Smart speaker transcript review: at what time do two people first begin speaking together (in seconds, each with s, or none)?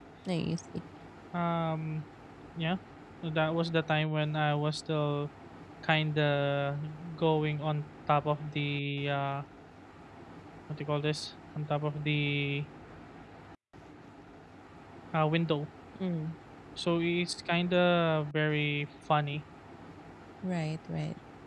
none